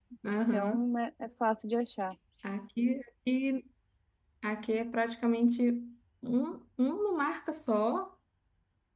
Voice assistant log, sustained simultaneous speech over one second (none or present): none